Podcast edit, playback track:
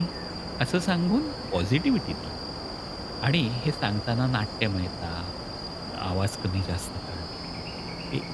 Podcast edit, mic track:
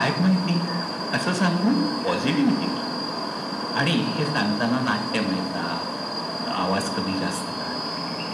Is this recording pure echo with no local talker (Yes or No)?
Yes